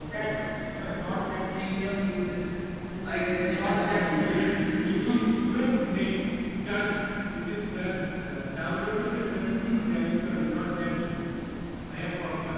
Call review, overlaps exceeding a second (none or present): present